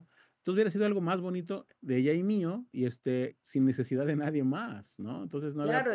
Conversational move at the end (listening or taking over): taking over